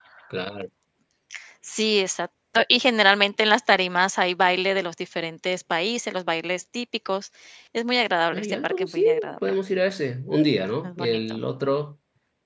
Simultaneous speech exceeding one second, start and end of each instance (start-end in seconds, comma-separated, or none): 8.3-9.5